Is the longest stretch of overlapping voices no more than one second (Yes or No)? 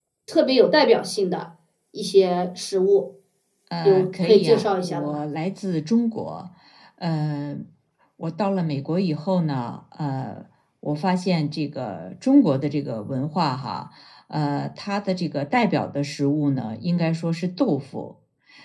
No